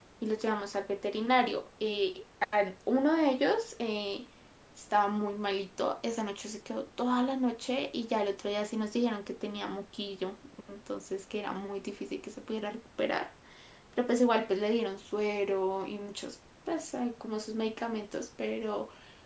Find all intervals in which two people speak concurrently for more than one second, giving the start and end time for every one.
none

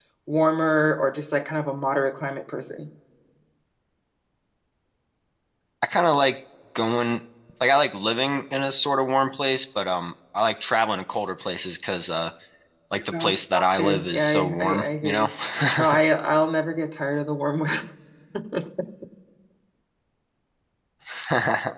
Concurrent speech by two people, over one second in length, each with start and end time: 13.8-15.3

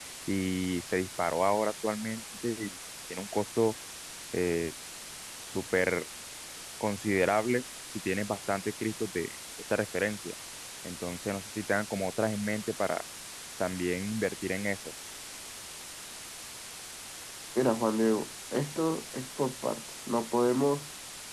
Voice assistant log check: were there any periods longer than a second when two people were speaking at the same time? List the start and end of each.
none

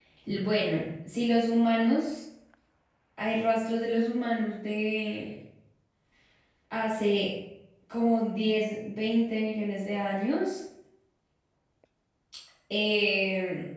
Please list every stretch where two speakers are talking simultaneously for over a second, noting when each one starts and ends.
none

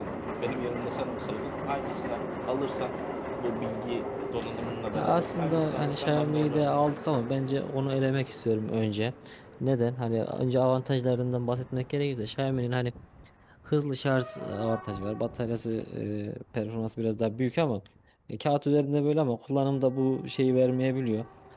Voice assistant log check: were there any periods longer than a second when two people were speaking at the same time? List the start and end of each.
4.9-6.8

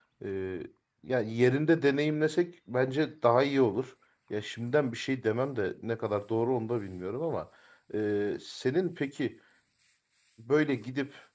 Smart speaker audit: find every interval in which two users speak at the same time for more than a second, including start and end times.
none

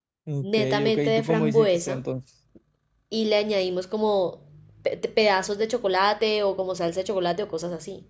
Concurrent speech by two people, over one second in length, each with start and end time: 0.5-1.9

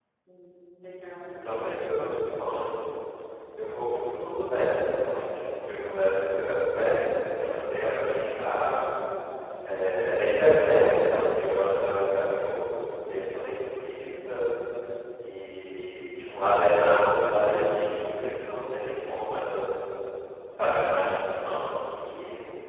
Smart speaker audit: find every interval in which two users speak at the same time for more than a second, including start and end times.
1.3-2.6

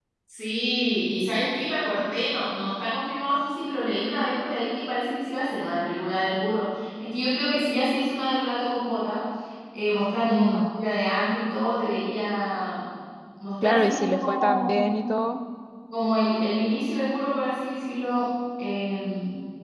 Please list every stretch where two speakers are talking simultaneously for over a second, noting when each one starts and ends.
13.6-14.9

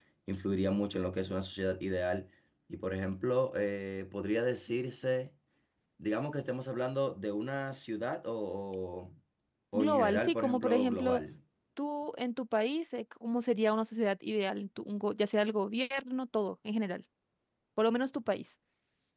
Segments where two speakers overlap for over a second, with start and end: 9.7-11.2

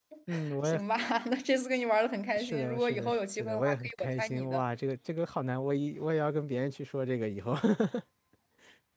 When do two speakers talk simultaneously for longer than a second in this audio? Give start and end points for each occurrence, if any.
2.4-4.6

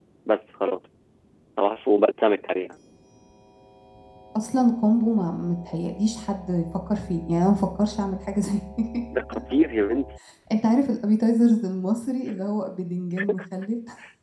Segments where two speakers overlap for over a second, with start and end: none

